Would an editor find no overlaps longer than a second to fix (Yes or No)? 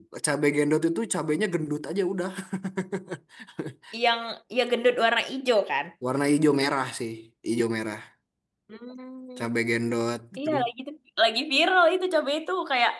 Yes